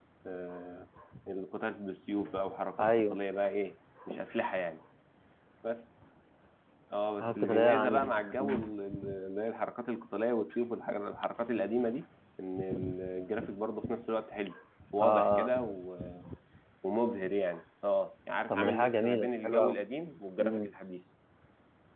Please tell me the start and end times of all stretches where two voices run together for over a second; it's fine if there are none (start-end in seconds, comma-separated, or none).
7.2-8.7, 18.5-19.8